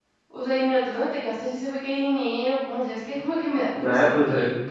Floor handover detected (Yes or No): Yes